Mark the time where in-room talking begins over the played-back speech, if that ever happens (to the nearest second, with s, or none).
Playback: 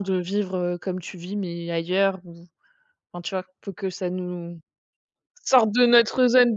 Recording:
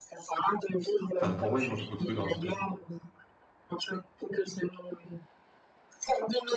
1 s